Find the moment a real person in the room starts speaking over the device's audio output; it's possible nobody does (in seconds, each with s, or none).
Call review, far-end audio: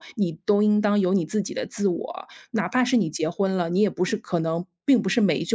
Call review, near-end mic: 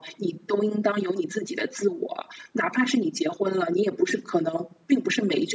none